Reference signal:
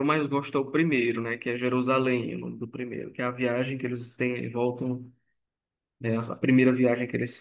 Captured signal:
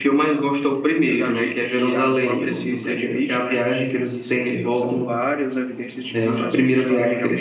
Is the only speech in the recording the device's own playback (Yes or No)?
No